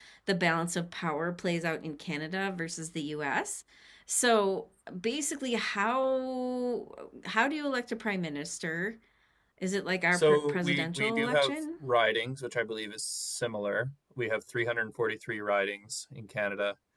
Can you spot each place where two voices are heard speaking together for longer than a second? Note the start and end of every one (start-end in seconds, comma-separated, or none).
10.1-11.6